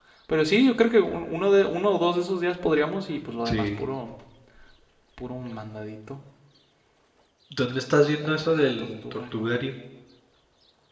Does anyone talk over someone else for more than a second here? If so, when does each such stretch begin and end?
8.2-9.5

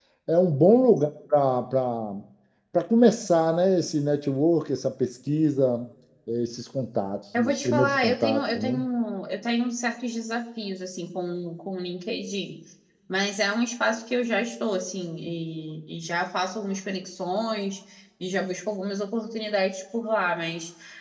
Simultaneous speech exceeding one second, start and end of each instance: 7.4-8.8

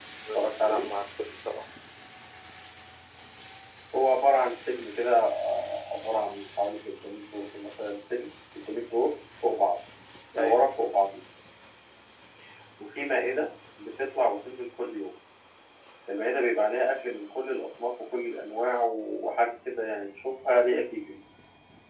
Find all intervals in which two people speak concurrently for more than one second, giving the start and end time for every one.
none

